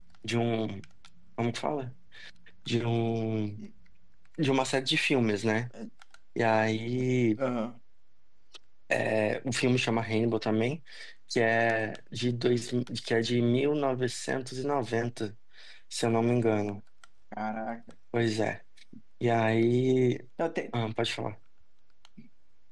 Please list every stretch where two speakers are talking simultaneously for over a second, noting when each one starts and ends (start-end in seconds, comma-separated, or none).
none